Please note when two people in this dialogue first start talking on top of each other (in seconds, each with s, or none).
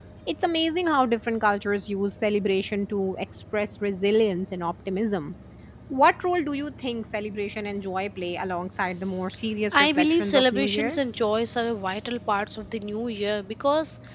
9.7 s